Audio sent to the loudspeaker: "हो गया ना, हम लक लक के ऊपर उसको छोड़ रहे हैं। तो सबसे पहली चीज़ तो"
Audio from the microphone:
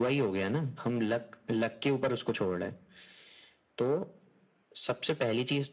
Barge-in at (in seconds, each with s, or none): none